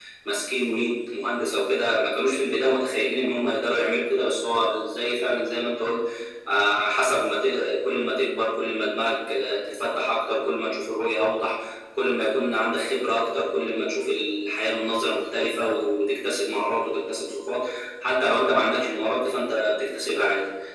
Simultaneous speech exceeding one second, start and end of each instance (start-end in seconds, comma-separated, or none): none